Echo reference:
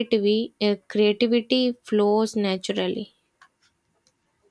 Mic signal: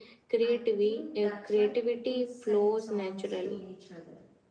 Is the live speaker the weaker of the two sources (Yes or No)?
Yes